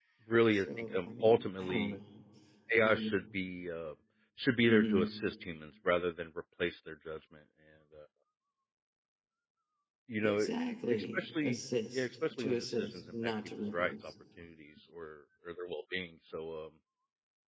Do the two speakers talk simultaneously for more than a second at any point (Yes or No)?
Yes